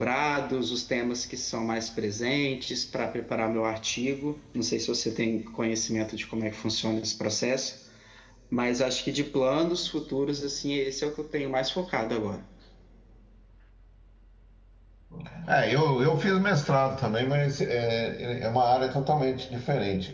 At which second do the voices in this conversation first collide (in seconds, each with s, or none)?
none